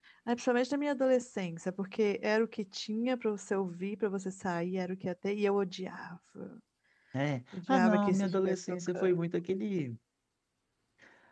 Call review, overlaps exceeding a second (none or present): present